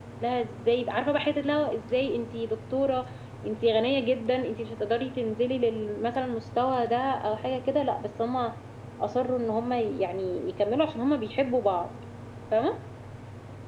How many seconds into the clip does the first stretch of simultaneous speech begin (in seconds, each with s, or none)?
none